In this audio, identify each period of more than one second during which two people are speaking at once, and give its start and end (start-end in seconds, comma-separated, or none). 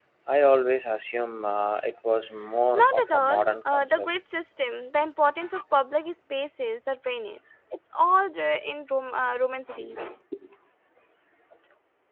2.8-4.1